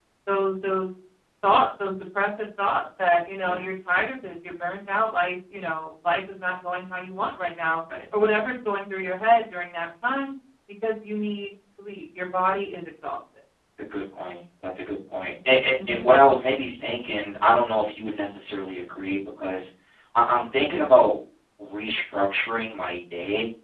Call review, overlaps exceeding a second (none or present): none